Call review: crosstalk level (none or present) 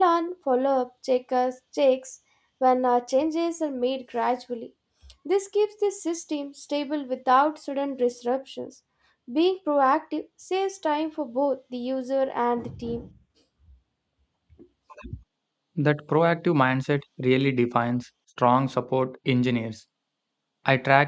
none